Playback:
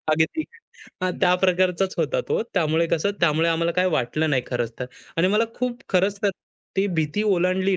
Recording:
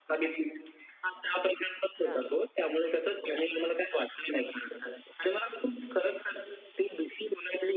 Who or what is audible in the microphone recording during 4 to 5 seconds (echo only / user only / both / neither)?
echo only